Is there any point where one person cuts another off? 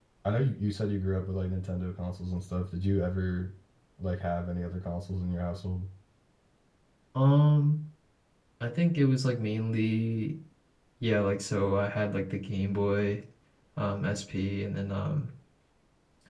No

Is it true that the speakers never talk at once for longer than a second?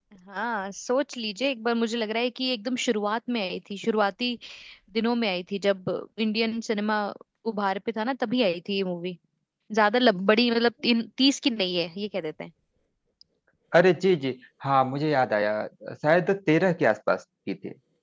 Yes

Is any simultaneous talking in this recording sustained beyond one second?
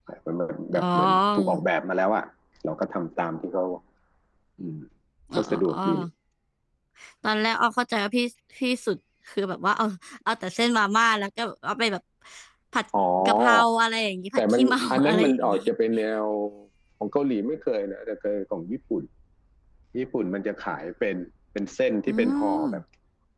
Yes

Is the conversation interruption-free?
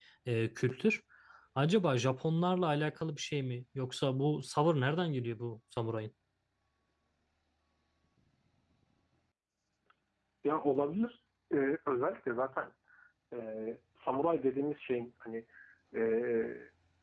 Yes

